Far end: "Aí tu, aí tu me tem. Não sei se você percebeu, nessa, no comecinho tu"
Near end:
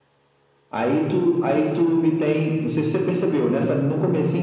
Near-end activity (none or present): none